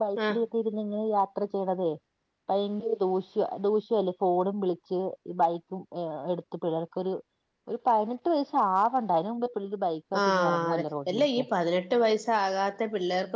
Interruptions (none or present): present